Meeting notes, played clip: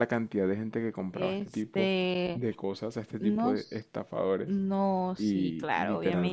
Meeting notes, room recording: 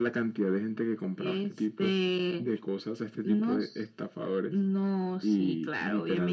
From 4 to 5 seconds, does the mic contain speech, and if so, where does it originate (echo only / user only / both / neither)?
echo only